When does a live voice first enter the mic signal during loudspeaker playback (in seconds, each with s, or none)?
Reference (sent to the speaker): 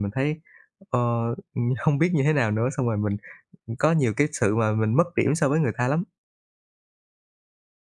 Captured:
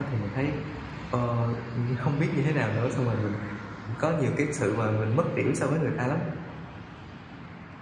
none